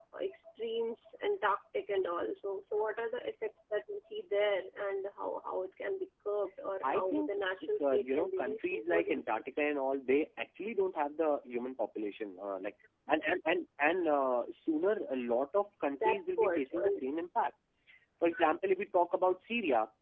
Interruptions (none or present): present